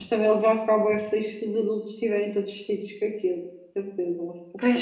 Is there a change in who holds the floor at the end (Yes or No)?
Yes